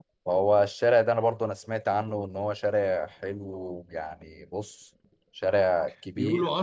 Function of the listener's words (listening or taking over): taking over